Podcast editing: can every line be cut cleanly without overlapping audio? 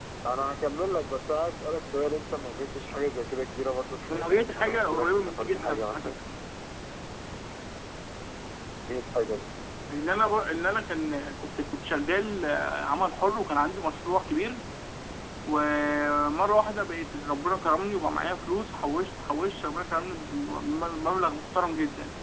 No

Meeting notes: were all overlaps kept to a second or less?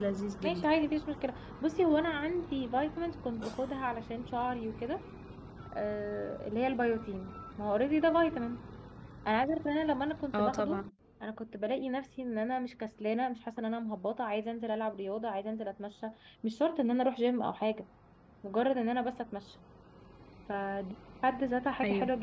Yes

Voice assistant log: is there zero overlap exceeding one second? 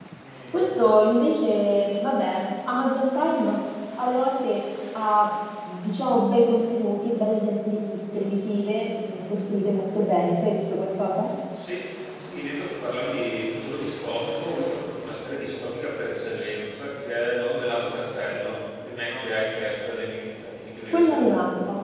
Yes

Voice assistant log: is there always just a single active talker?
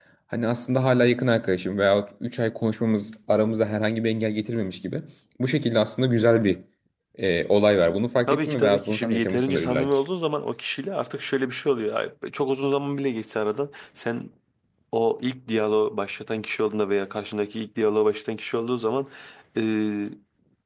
No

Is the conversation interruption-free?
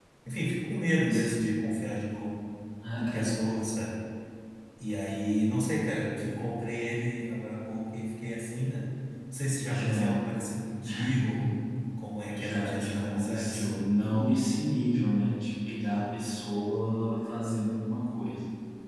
No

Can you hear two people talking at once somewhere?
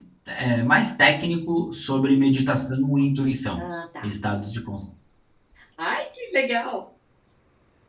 No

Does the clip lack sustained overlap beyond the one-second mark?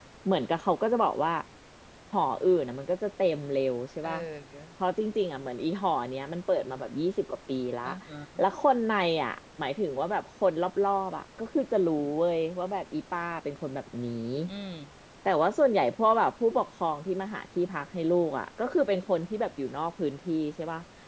Yes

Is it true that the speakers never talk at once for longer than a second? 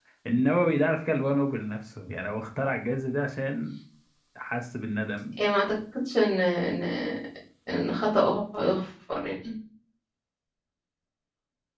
Yes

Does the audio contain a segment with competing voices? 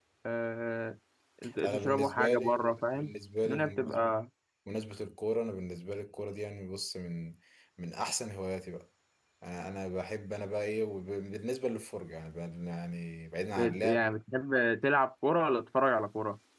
Yes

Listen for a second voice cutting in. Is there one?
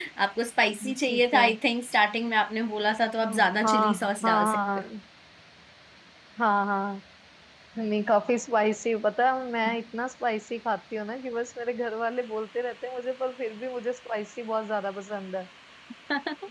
Yes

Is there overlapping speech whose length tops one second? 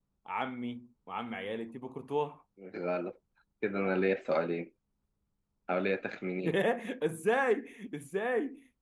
No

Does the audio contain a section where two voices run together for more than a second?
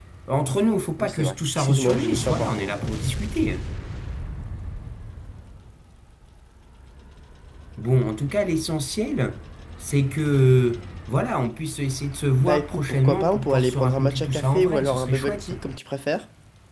Yes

